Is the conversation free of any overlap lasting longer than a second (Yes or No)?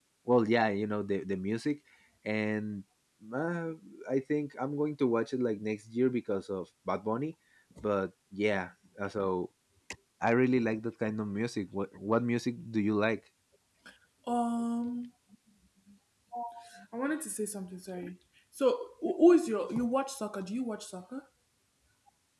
Yes